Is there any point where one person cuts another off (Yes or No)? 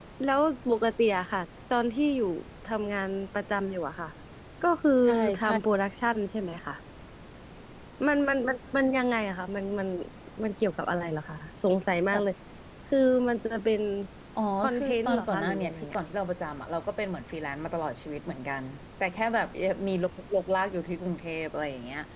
Yes